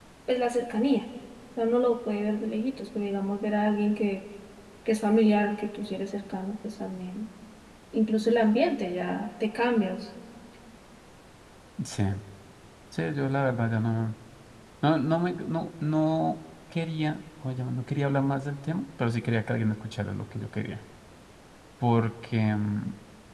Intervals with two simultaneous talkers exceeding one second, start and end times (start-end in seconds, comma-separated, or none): none